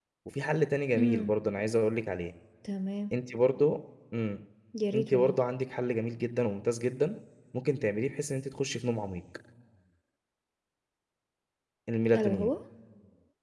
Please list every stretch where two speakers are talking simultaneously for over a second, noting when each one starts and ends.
none

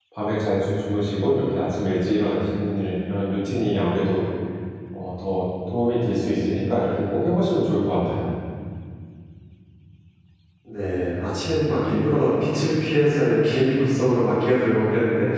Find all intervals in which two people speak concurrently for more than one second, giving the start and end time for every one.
none

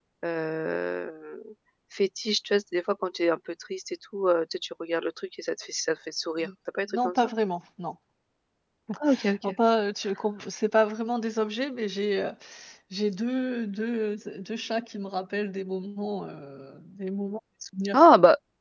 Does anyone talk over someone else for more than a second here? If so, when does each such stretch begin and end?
none

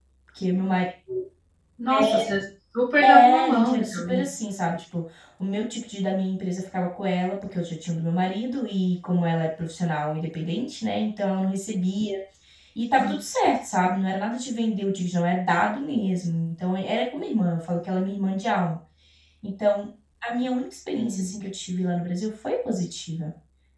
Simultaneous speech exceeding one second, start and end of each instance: 3.0-4.3

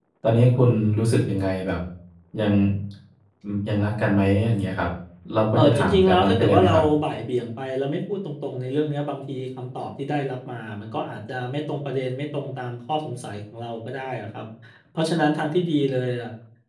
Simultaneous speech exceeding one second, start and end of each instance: 5.6-6.8

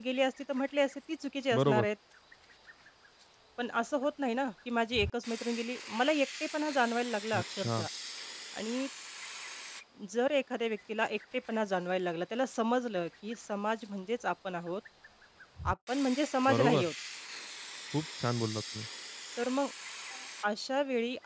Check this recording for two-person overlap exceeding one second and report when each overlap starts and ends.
none

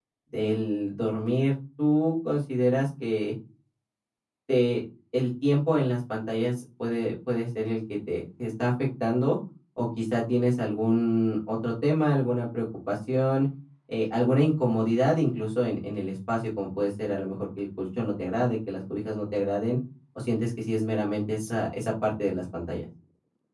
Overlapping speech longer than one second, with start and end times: none

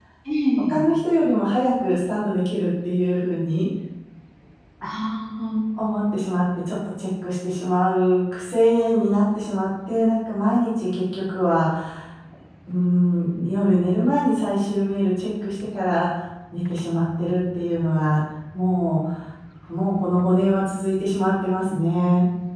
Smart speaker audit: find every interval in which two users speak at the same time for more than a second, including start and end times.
none

